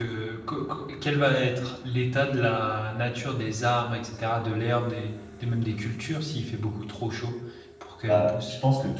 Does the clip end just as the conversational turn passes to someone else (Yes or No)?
Yes